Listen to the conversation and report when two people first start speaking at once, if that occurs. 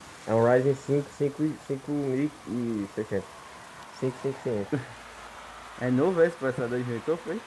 none

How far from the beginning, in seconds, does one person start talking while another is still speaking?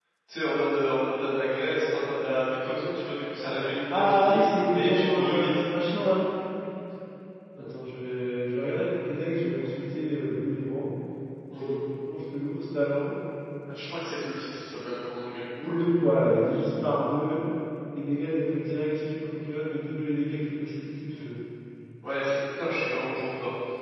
4 s

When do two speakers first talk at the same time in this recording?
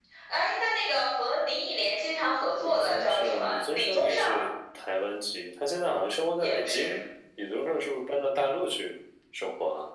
3 s

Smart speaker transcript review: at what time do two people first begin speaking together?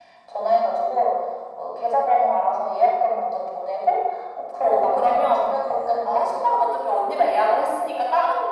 5 s

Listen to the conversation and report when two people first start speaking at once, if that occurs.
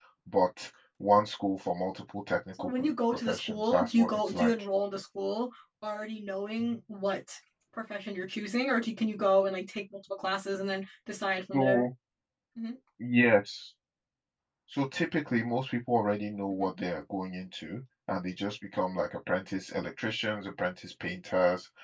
3 s

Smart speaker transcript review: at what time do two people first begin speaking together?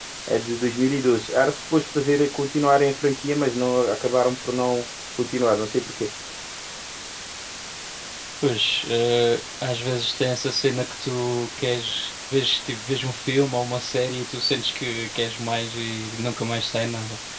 none

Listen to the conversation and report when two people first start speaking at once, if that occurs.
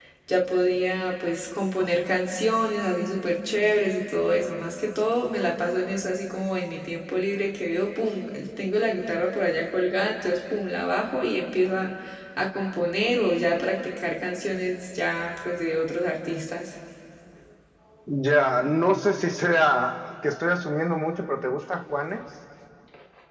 none

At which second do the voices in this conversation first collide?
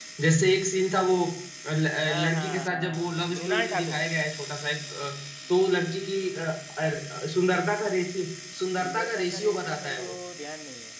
2 s

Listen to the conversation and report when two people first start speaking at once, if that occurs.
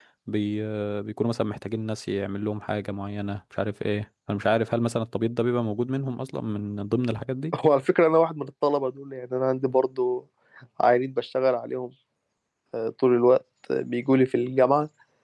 none

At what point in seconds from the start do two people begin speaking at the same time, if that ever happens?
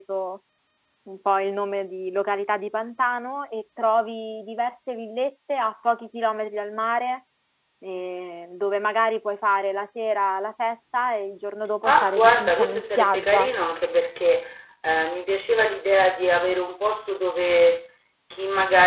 12 s

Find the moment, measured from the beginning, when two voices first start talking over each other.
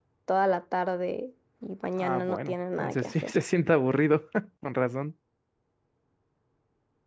2 s

